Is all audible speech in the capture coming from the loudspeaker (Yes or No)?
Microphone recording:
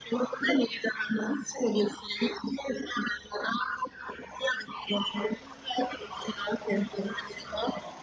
Yes